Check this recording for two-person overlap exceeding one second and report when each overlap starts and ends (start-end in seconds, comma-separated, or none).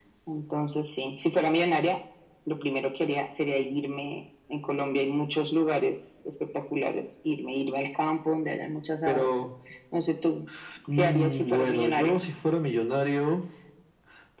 10.9-12.2